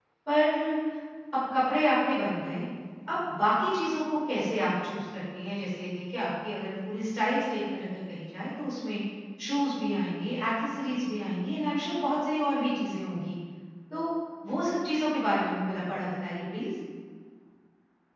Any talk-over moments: No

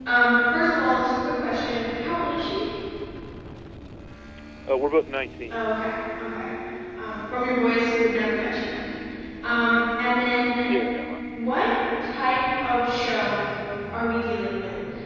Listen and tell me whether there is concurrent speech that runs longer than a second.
No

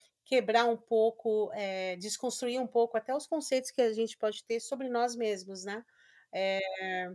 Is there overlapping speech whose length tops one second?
No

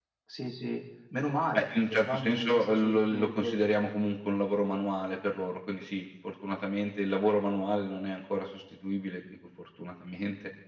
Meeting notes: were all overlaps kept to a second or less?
No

